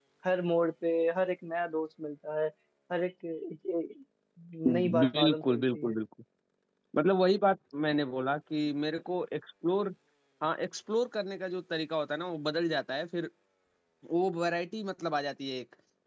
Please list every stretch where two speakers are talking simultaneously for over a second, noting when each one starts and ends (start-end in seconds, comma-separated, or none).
4.7-6.0